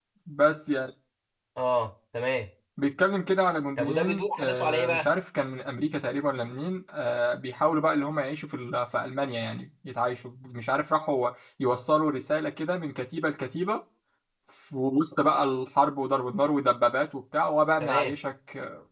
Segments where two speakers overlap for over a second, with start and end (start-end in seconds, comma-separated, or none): 3.8-5.1